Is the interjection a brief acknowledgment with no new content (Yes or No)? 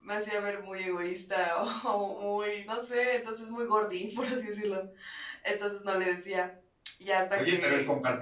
No